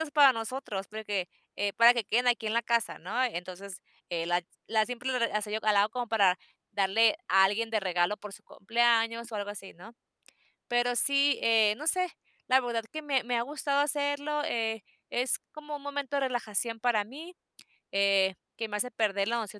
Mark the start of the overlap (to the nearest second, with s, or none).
none